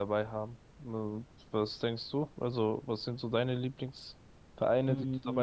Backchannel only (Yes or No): No